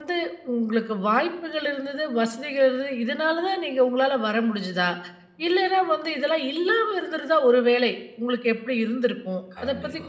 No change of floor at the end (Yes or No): Yes